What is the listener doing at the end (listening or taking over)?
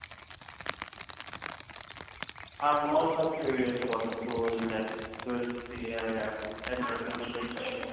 taking over